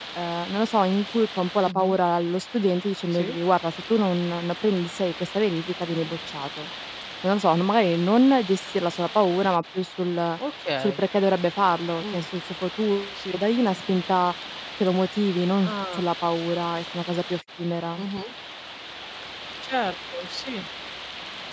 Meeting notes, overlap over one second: none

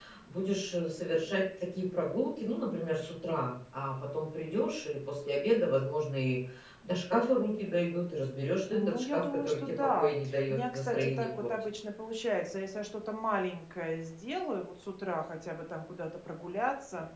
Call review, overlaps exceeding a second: present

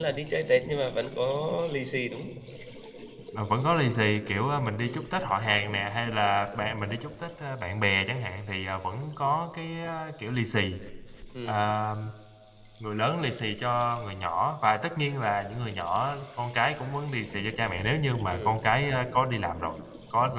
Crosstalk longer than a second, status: none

